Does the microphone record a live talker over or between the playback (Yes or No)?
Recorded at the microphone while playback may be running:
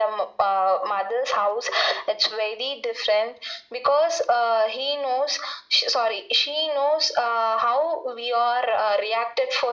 No